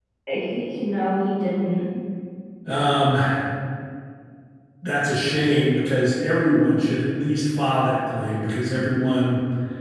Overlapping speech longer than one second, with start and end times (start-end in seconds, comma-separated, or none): none